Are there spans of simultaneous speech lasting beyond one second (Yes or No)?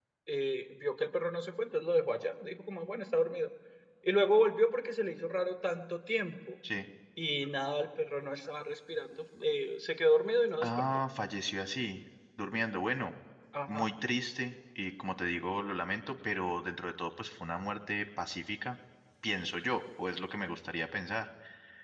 No